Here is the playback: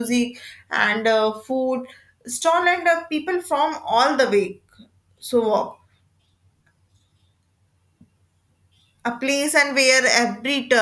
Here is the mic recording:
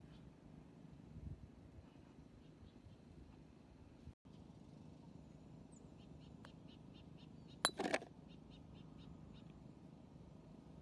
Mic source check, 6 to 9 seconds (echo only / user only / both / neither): neither